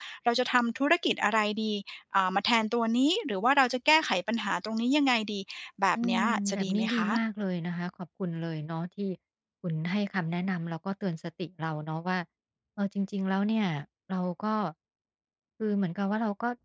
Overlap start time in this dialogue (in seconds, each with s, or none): 6.0 s